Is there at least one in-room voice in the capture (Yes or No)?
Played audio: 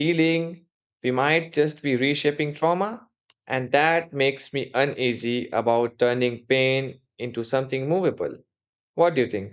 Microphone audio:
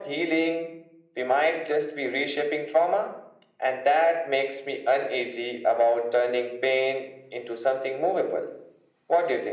No